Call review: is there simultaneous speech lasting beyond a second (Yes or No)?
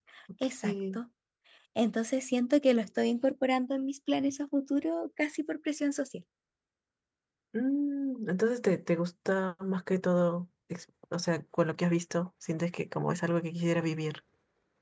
No